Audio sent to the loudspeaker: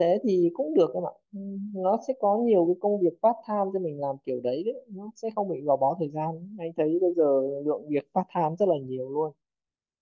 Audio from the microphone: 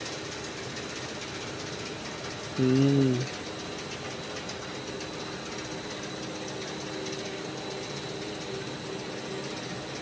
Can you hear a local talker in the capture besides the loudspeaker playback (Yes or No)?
Yes